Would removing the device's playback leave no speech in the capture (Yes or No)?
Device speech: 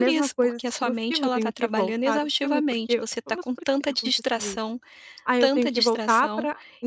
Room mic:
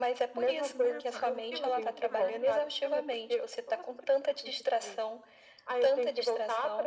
No